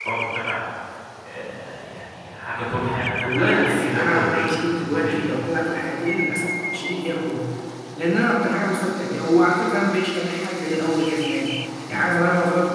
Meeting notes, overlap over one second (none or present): present